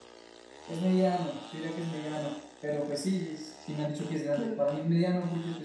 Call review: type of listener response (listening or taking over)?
listening